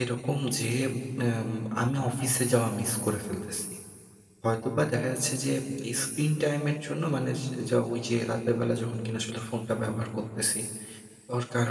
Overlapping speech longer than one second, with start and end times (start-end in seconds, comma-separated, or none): none